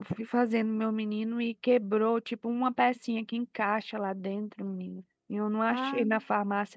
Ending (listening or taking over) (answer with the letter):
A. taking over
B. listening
B